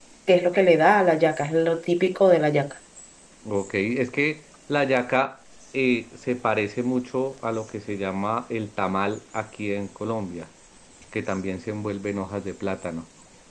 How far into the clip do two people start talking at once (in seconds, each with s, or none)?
none